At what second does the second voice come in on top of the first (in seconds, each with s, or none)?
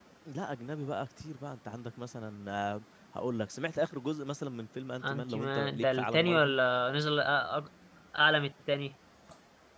5.0 s